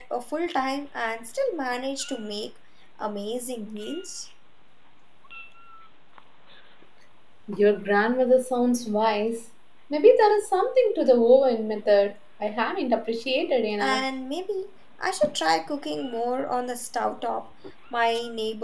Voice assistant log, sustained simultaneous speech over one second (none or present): none